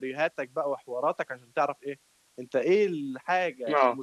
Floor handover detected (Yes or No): No